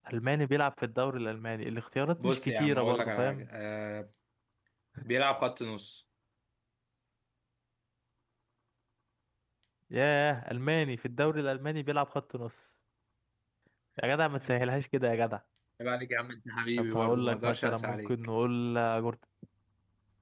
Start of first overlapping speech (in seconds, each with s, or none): 2.2 s